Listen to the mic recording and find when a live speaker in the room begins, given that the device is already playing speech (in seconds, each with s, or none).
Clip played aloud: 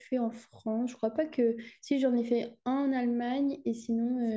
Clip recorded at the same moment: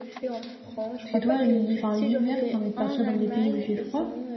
1.0 s